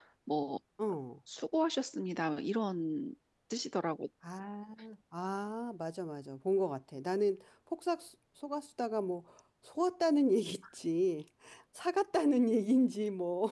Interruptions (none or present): none